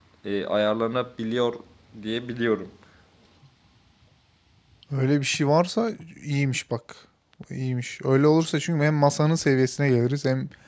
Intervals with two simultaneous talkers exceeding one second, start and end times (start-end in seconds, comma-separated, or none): none